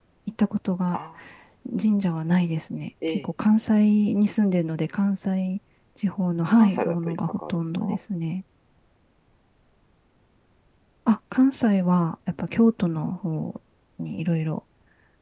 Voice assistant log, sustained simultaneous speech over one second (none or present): present